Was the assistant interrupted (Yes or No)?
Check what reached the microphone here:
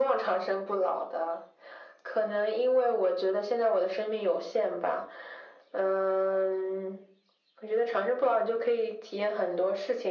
No